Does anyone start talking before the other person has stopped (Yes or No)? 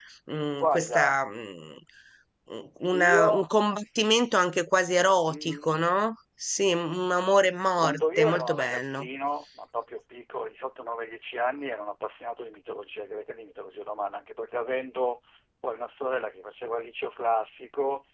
Yes